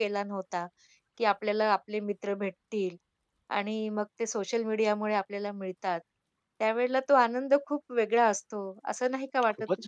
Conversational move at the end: taking over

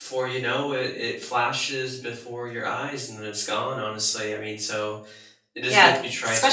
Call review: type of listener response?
taking over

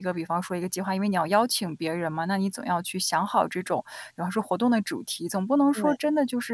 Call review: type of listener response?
listening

